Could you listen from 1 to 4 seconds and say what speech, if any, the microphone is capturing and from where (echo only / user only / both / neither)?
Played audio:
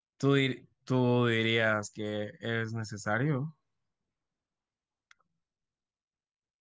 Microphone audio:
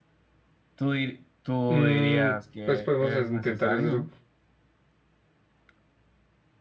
both